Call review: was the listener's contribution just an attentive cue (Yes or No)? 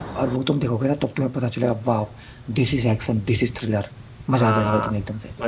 No